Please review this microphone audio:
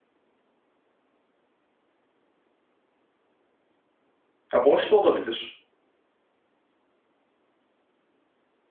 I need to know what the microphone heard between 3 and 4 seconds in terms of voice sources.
neither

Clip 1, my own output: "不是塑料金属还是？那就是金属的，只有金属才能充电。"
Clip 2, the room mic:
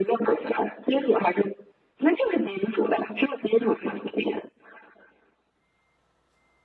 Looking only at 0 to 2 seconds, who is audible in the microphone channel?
echo only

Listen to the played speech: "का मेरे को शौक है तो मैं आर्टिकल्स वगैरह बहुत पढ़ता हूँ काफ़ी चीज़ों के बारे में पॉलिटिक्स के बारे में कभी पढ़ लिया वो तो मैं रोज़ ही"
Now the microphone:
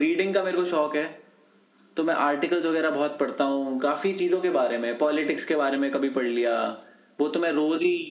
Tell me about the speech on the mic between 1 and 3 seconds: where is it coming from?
echo only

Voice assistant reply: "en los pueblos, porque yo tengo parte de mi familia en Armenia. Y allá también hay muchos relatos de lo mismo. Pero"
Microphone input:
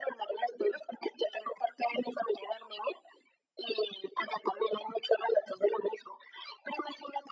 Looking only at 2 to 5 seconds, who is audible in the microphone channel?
echo only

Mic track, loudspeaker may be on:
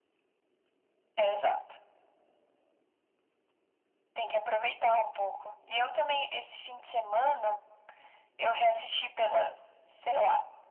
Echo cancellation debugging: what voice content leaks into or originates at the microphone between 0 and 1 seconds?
neither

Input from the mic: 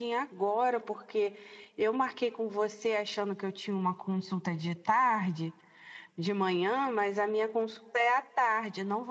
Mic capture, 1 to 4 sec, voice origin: echo only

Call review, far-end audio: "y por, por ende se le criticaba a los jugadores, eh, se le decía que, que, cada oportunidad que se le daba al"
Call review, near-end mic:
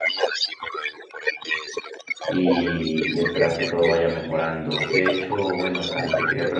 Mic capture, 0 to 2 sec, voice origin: echo only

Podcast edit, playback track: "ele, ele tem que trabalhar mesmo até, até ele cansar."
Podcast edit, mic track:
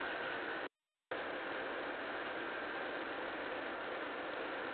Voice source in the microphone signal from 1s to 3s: neither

